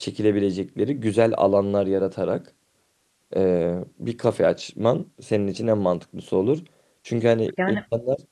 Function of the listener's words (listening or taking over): listening